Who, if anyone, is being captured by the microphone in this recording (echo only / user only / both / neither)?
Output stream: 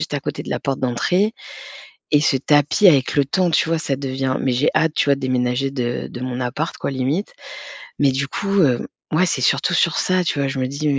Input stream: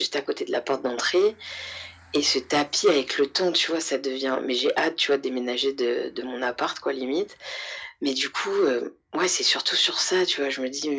echo only